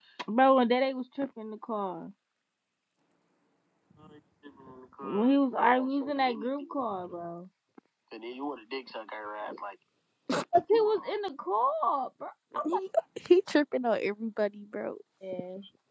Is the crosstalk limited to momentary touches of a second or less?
Yes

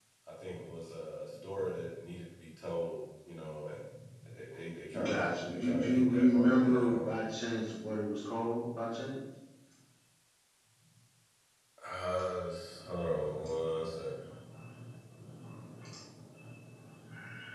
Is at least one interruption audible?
Yes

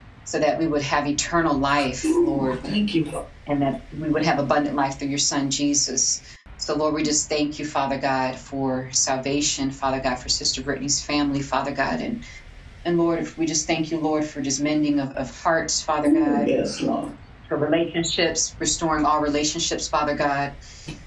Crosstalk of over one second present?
No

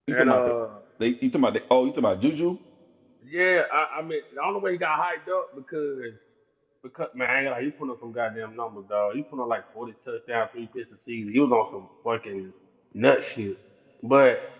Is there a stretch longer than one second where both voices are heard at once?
No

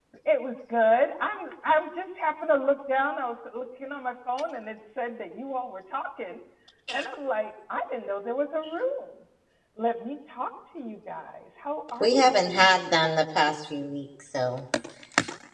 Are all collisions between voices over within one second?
Yes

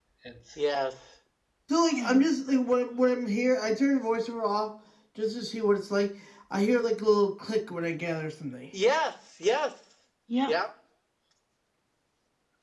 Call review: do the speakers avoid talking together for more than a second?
Yes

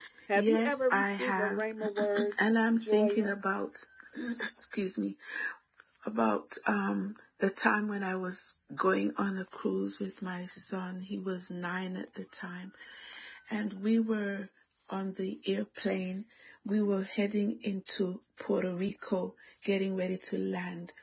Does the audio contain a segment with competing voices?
Yes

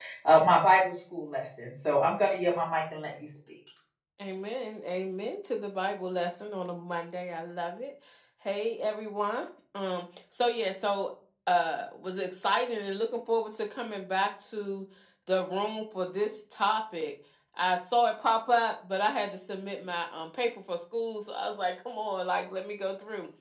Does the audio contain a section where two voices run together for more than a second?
No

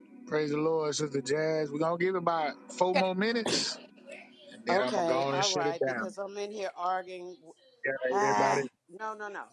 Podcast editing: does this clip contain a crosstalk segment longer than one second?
Yes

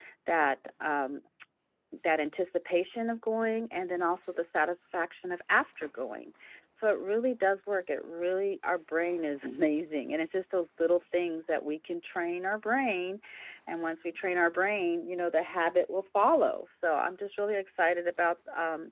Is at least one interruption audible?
No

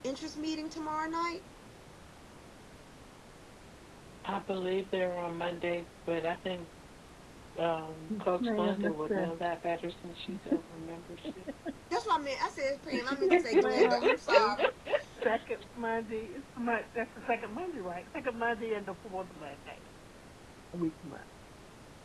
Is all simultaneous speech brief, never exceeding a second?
No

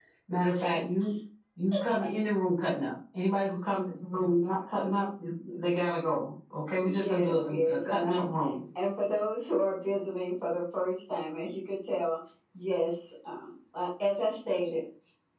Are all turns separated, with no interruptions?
No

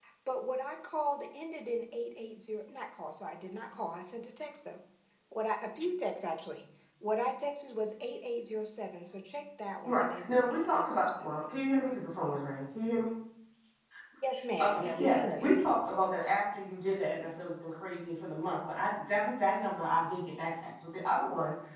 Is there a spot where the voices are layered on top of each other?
Yes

